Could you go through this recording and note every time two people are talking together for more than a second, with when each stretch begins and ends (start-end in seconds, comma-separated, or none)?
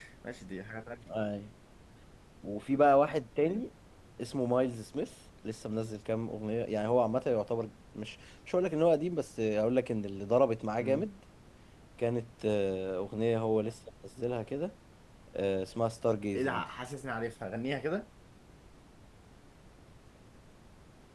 none